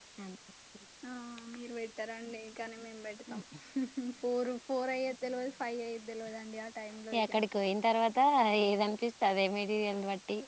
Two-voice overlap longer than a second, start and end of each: none

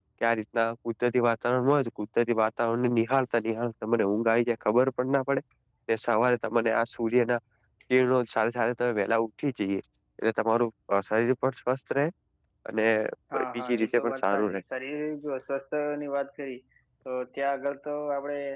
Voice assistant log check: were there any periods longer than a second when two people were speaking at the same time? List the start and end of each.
13.4-14.6

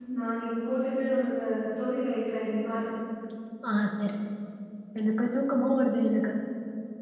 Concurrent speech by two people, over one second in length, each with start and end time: none

